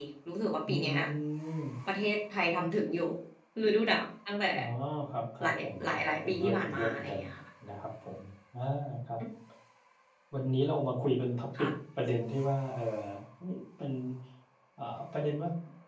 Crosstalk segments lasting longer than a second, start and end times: 5.4-7.2

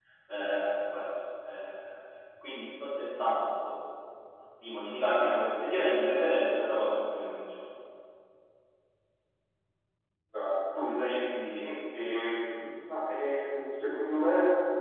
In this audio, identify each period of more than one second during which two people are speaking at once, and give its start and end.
none

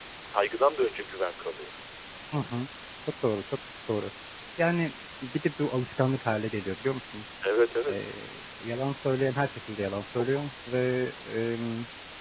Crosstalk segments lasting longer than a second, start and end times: none

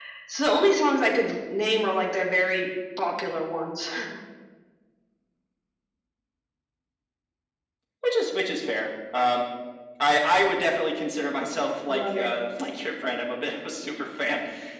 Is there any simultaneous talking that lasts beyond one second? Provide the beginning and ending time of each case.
none

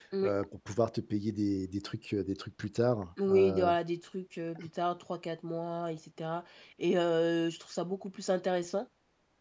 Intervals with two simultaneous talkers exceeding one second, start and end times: none

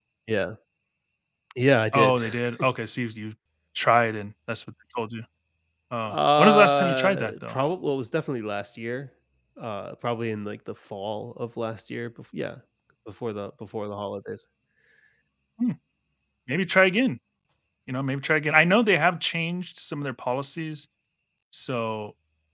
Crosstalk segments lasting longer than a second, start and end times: 6.1-7.6

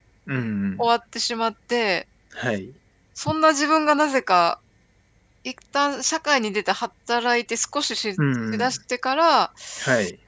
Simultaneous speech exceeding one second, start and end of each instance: none

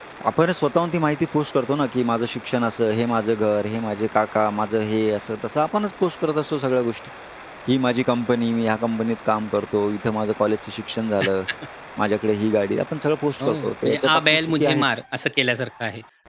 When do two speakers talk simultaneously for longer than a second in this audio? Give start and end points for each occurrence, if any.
13.4-14.8

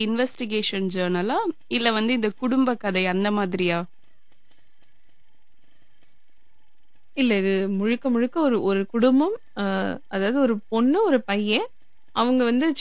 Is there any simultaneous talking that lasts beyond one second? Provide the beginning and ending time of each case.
none

